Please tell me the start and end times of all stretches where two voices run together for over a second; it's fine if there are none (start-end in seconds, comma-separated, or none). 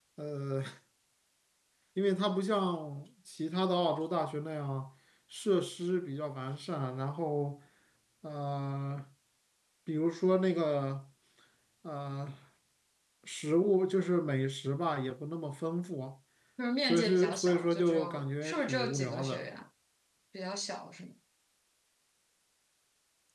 16.9-19.5